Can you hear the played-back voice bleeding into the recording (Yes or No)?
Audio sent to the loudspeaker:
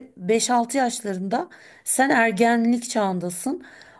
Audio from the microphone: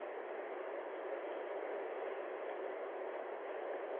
No